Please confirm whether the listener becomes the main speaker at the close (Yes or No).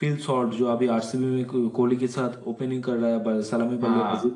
No